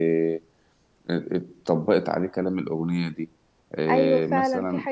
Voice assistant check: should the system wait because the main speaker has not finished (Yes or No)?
No